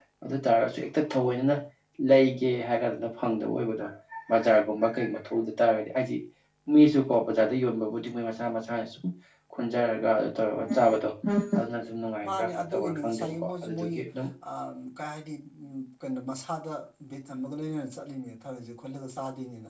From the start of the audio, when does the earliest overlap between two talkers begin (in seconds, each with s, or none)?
12.3 s